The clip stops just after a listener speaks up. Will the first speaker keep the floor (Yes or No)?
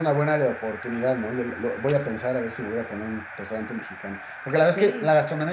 Yes